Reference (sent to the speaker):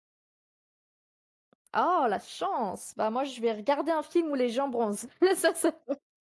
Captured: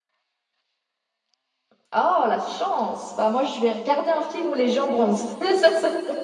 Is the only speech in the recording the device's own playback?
Yes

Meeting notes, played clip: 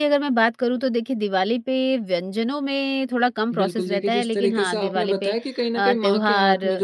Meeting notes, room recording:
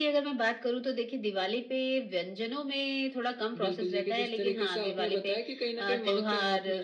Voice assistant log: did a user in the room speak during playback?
No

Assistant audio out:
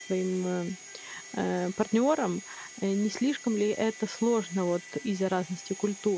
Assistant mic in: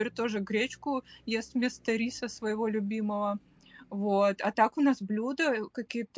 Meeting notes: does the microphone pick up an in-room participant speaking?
Yes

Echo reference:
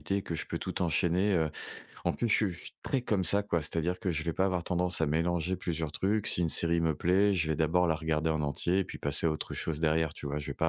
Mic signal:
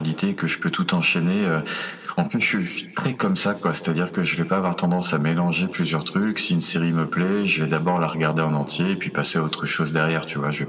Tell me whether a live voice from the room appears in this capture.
No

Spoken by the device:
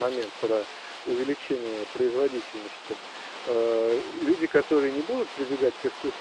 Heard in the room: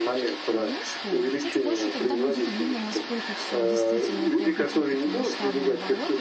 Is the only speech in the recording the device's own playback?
No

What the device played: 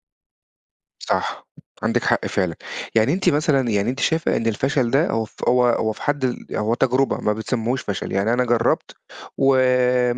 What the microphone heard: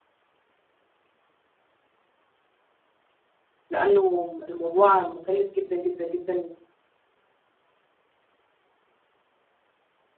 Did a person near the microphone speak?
Yes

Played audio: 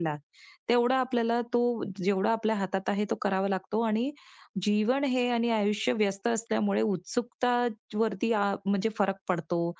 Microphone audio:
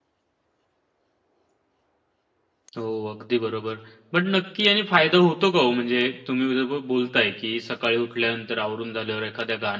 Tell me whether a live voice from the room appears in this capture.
Yes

